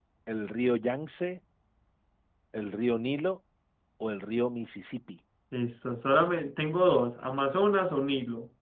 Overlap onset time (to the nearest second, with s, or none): none